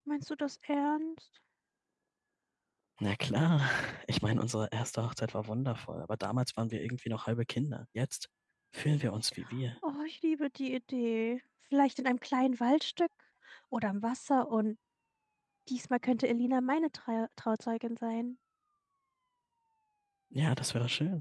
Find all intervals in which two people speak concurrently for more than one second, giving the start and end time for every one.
none

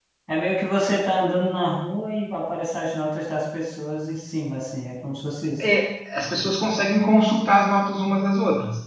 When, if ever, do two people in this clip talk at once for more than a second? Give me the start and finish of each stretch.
none

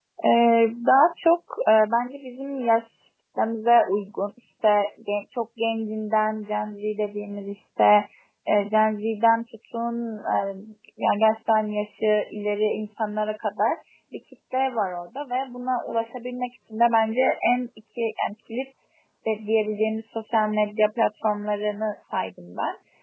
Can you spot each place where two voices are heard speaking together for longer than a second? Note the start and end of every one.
none

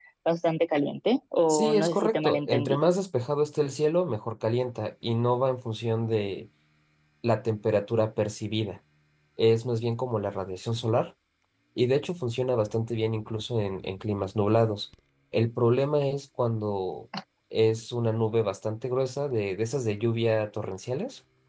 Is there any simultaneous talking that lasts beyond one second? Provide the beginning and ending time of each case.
1.5-2.8

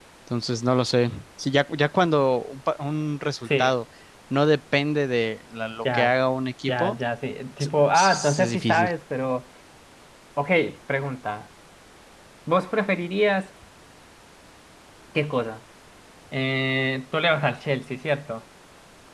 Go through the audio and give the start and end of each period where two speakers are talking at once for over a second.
7.6-8.9

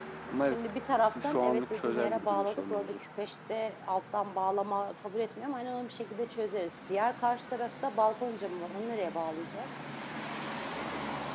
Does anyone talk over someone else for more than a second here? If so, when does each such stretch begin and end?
1.1-3.0

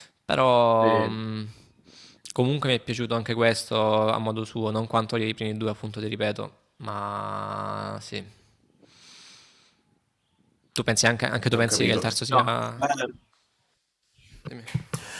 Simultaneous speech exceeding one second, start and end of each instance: 11.6-12.8

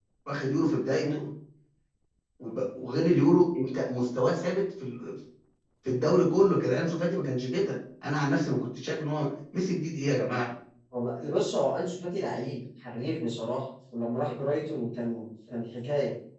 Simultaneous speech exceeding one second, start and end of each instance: none

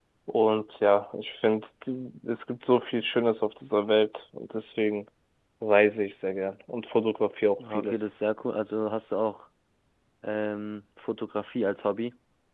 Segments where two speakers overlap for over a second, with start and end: none

